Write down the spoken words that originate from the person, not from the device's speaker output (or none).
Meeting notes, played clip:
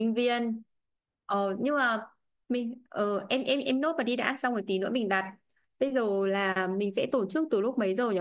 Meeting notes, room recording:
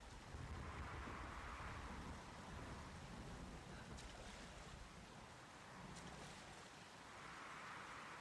none